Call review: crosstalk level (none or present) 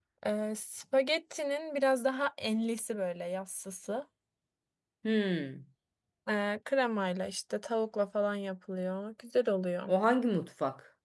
none